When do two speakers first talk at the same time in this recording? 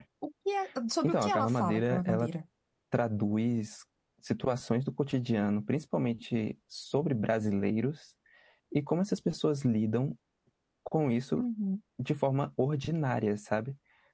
1.0 s

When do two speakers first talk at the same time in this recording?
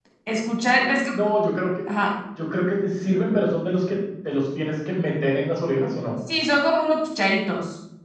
none

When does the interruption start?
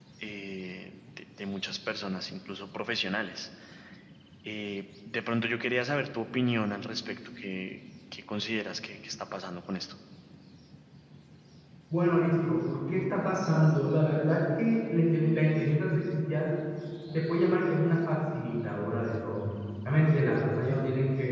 none

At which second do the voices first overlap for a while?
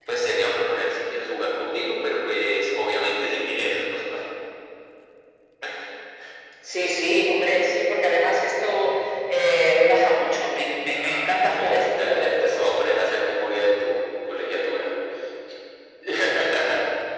10.9 s

